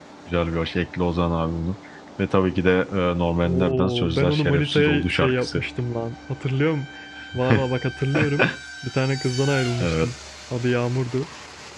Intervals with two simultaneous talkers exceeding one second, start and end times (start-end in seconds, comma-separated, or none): 3.4-5.6